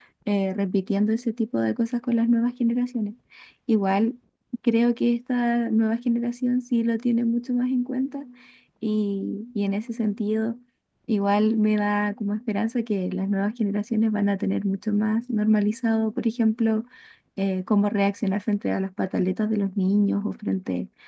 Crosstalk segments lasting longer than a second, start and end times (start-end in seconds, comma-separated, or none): none